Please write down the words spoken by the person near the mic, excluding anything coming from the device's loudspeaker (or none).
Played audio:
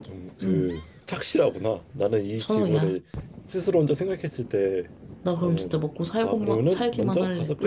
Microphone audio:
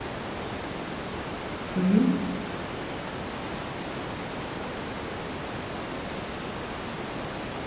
음,